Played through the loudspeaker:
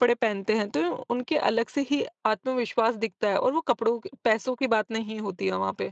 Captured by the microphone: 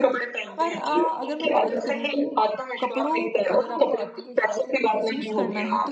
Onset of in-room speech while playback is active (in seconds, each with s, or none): 0.6 s